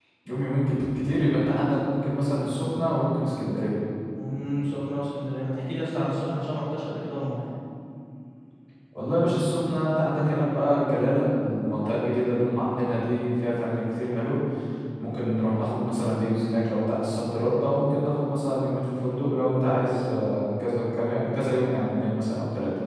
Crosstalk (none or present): none